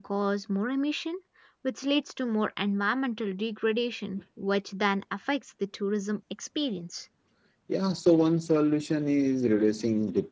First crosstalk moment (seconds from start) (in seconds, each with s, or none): none